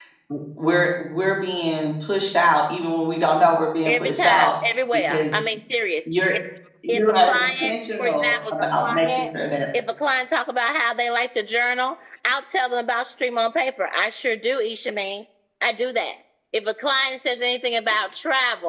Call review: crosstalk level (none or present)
present